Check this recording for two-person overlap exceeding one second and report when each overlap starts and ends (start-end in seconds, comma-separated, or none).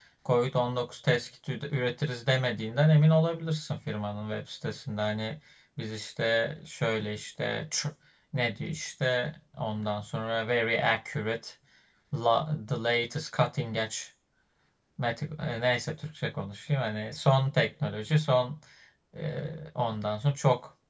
none